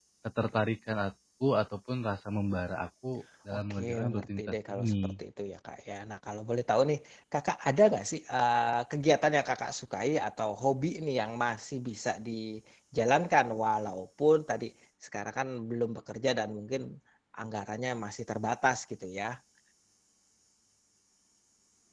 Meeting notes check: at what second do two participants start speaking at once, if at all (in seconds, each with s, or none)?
3.5 s